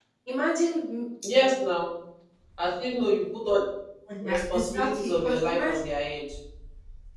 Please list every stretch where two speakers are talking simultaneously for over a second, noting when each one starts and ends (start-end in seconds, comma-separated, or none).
4.2-5.8